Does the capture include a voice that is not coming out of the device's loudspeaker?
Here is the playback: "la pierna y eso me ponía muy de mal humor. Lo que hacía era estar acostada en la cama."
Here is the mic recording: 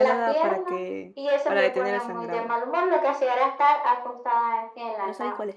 Yes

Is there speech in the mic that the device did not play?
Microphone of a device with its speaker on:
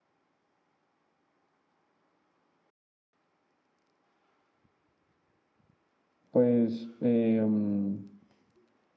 Yes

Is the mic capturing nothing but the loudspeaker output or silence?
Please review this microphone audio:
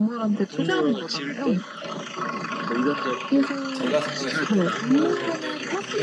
No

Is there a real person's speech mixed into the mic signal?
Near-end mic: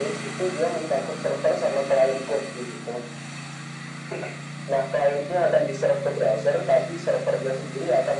No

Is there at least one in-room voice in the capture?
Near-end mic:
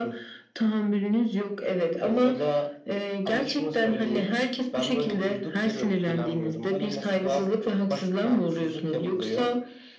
No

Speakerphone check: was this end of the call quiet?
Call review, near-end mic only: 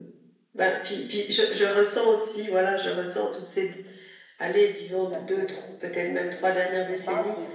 No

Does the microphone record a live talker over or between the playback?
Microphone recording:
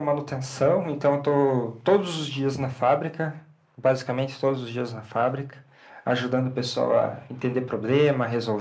No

